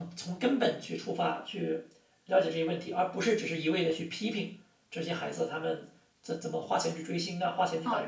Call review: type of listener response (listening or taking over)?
taking over